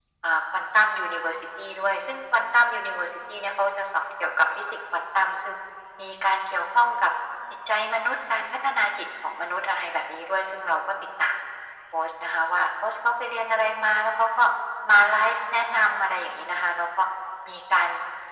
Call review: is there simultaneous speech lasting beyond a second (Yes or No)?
No